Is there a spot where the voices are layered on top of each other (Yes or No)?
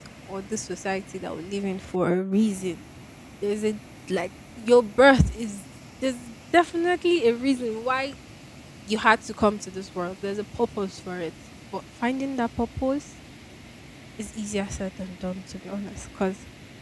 No